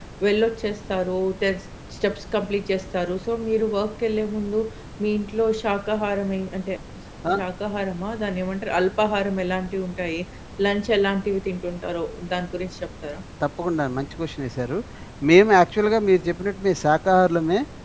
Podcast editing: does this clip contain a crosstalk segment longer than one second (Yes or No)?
No